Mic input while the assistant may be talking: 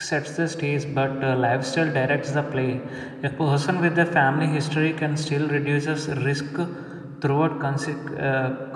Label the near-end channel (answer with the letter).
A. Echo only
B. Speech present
B